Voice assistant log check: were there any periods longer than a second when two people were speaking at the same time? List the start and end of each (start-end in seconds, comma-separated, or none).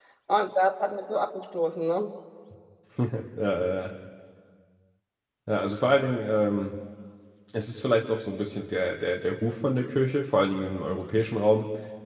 none